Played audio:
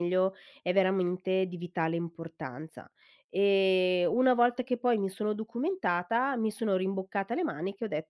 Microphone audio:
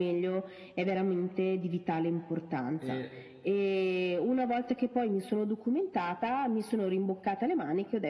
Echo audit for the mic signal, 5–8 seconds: echo only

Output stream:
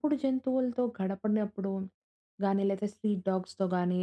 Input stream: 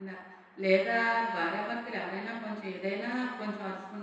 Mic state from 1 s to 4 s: user only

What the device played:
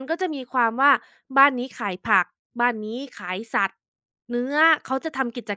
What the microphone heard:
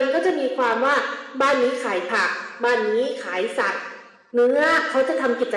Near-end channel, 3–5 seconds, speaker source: echo only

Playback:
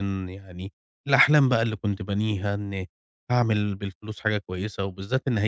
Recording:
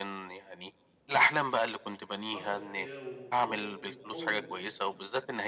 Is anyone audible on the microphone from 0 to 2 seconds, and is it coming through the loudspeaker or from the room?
echo only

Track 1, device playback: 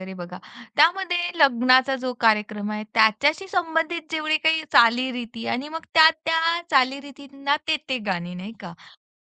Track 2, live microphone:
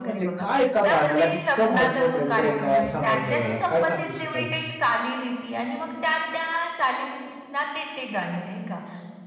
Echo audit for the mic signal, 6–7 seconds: echo only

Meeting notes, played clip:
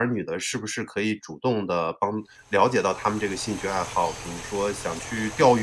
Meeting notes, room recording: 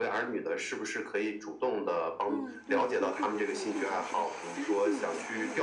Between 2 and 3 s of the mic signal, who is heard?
both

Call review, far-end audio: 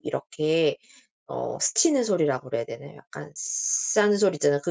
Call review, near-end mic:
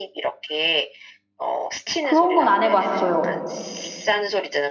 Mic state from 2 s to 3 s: both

